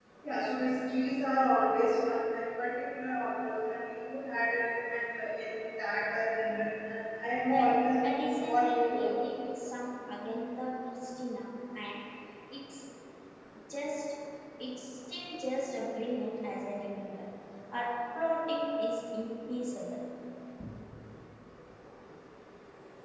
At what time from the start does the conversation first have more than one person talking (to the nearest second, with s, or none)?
7 s